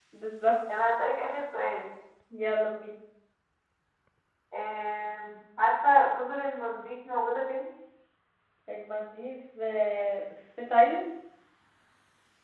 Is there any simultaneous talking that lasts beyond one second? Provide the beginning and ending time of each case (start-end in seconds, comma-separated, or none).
none